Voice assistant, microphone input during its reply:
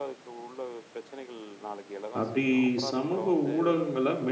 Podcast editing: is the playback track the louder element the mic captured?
No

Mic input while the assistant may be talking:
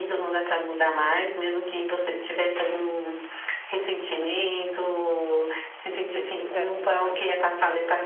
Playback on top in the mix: Yes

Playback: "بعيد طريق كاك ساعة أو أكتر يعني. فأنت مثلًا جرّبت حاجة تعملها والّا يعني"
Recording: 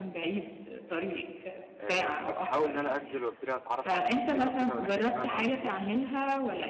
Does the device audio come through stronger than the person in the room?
Yes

